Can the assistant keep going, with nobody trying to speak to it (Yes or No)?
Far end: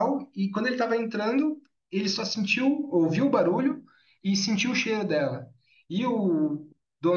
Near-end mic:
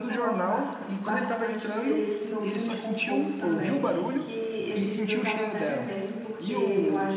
No